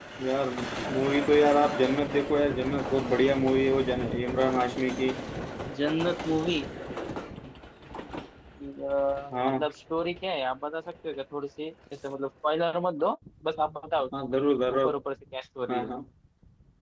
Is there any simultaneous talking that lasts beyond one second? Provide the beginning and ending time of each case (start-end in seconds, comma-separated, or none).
none